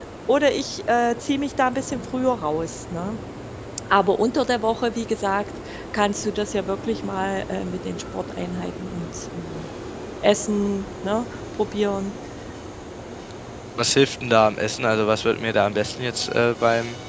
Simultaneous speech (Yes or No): No